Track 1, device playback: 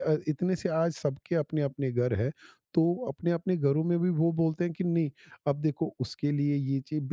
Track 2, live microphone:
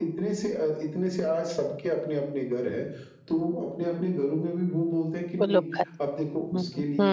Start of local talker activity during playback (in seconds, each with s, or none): 5.4 s